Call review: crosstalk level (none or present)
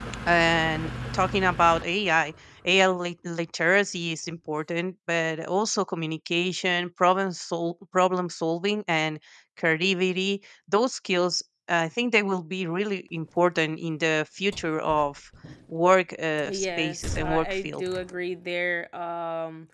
present